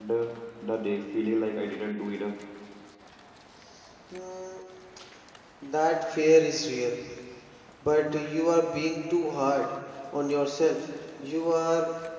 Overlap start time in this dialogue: none

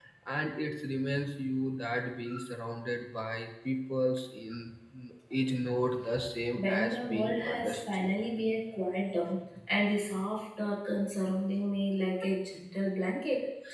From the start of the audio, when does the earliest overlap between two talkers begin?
6.5 s

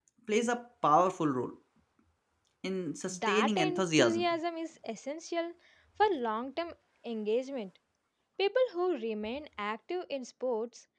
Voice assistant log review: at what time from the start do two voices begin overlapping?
3.1 s

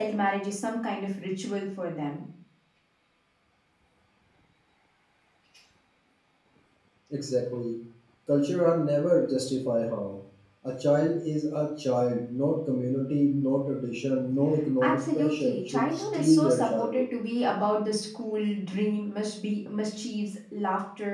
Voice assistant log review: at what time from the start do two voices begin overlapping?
14.8 s

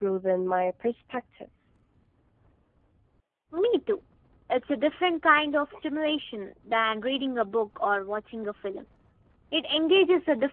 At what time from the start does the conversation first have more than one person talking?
none

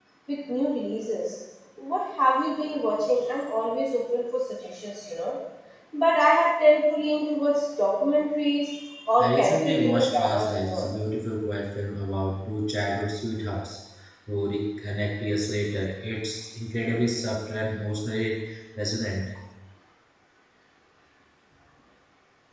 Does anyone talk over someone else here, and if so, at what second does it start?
9.2 s

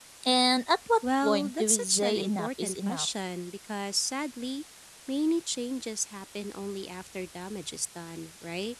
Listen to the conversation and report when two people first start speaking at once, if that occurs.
1.2 s

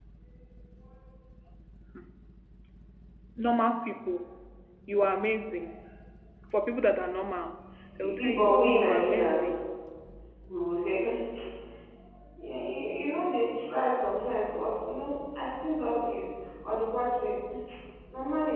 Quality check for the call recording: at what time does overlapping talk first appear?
8.0 s

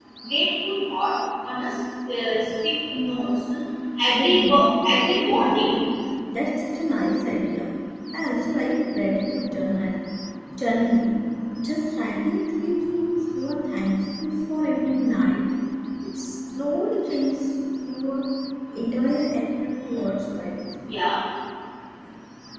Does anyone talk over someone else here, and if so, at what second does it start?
4.2 s

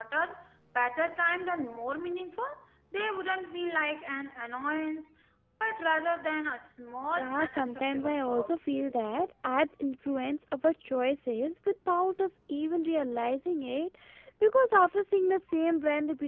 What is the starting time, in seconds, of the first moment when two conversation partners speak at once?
7.1 s

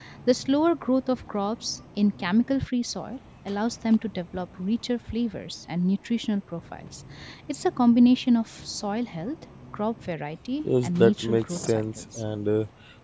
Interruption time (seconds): 10.6 s

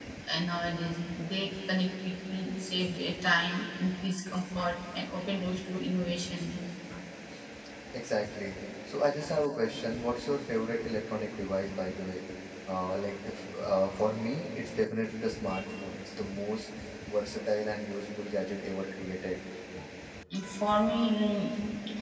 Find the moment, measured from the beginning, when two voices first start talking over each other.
none

